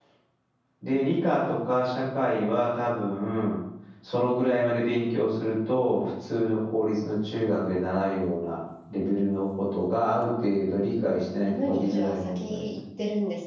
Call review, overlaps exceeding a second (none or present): present